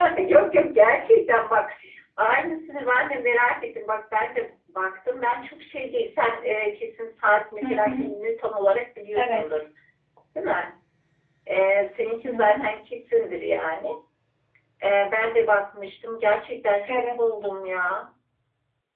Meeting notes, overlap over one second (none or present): none